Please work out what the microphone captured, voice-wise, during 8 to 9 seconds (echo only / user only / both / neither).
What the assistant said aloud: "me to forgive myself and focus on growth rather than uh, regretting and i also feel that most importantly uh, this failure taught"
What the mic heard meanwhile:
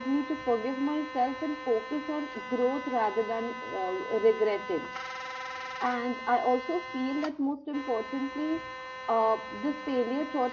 echo only